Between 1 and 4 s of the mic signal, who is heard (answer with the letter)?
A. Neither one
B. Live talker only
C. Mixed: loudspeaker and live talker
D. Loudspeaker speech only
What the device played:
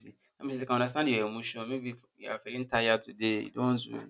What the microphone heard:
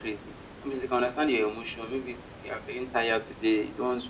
D